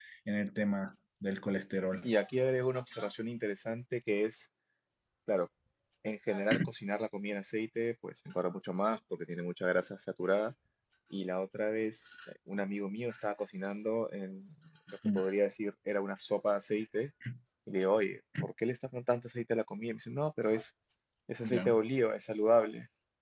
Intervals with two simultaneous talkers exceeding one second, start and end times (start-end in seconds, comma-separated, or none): none